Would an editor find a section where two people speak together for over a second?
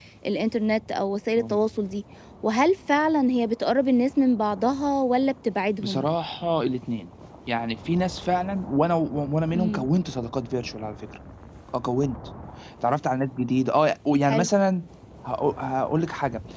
No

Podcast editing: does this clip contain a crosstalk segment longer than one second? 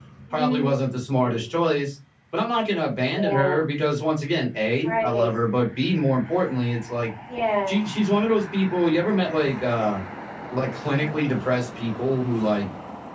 No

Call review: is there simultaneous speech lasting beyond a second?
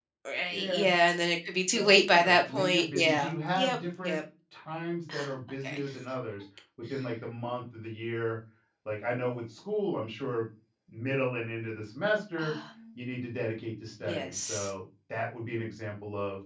Yes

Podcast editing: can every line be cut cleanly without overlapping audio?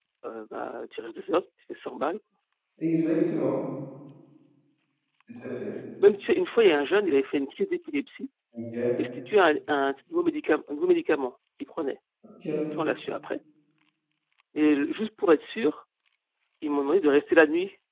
Yes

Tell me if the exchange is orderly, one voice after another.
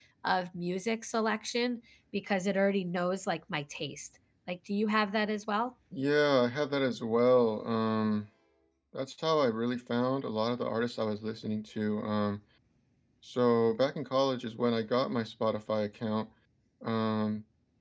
Yes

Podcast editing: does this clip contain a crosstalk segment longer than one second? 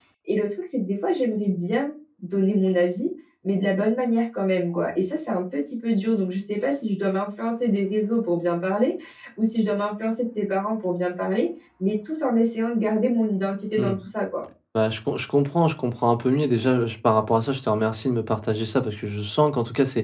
No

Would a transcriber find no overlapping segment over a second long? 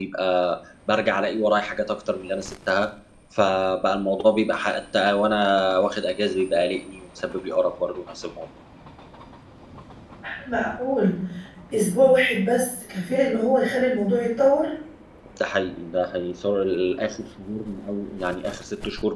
Yes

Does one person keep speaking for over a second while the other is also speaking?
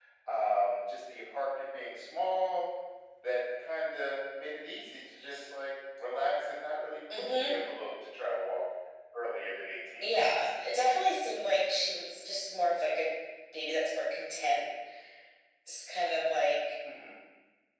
No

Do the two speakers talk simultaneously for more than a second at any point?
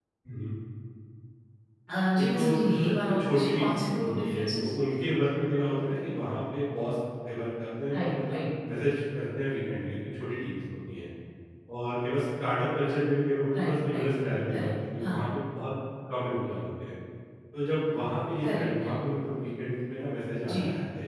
Yes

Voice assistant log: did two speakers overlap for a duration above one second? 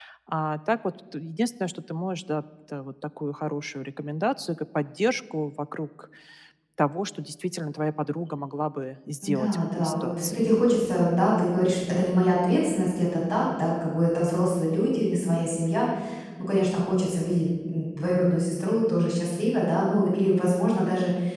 Yes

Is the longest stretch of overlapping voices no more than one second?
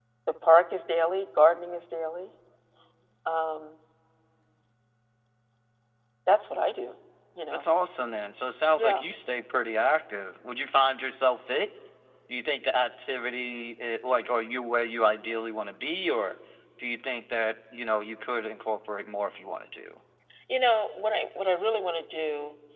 Yes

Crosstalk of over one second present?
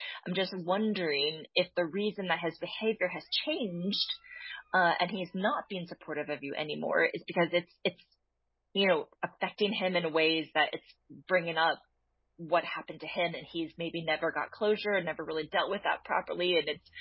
No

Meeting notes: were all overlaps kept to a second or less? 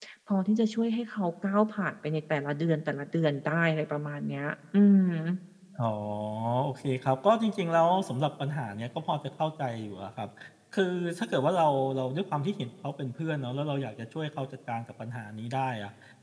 Yes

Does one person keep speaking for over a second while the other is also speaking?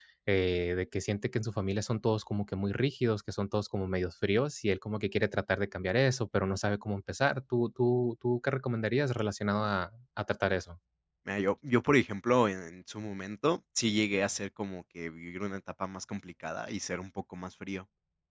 No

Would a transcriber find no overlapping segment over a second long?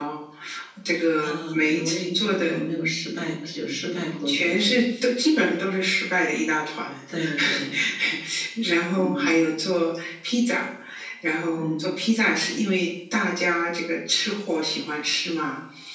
No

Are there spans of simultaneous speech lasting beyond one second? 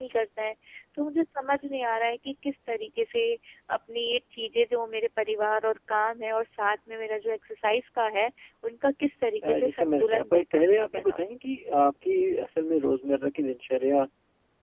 Yes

